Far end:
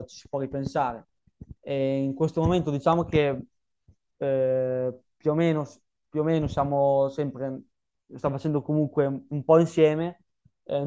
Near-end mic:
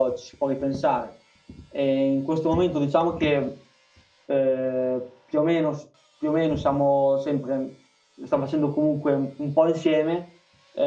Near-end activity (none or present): none